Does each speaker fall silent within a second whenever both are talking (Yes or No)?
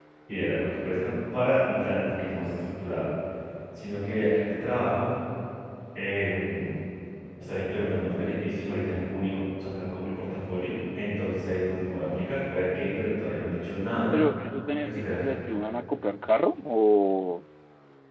Yes